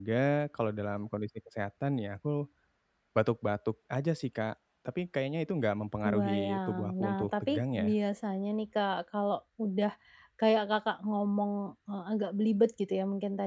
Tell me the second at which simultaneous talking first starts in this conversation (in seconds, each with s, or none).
6.0 s